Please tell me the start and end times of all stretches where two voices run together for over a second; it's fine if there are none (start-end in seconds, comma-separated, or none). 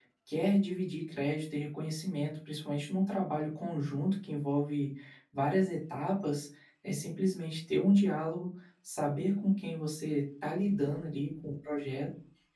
none